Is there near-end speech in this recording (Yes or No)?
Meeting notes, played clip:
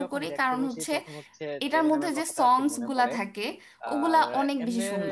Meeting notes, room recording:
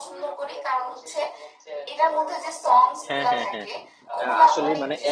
Yes